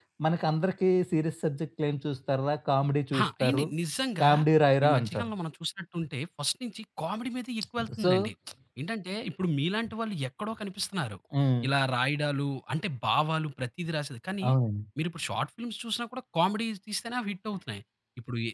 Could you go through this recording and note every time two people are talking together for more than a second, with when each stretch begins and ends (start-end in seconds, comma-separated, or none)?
none